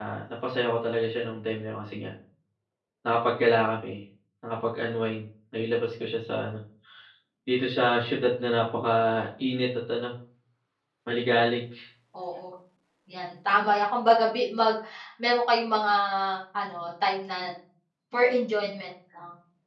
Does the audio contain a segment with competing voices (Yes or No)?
No